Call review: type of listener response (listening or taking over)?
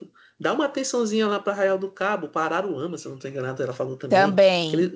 listening